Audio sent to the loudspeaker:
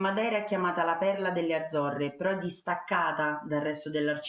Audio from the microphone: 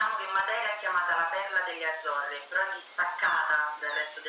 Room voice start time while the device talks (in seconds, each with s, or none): none